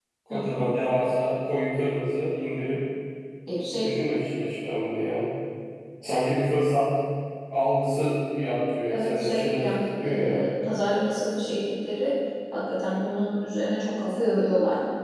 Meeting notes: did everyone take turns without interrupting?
No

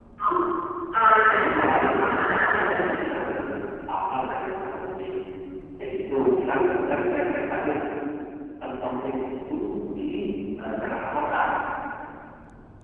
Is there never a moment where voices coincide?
No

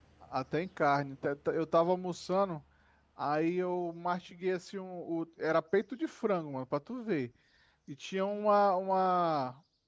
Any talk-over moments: No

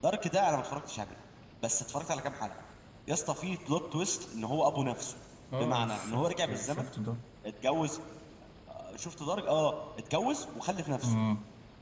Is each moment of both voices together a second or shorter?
No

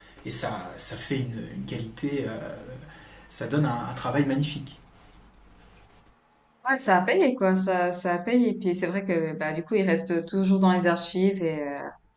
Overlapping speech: No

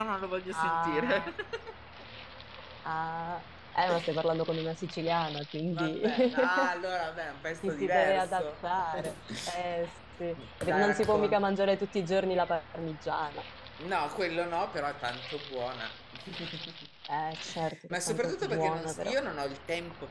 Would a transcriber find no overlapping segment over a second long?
No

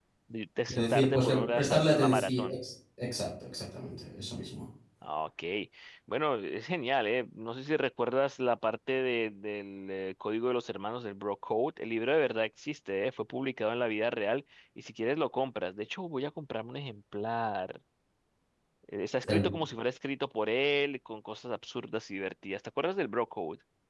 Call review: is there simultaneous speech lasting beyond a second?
Yes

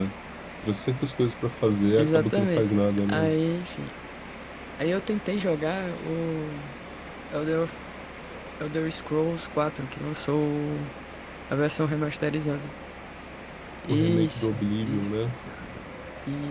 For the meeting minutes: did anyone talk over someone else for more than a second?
Yes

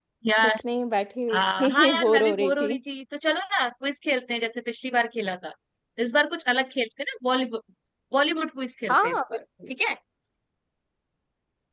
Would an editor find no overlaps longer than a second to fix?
No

